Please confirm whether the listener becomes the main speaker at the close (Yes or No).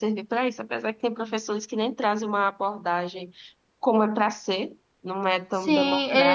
Yes